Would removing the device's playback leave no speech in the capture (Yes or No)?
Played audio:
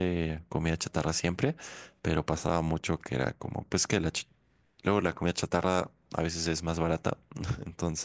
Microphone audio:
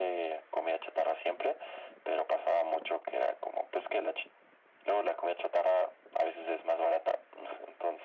Yes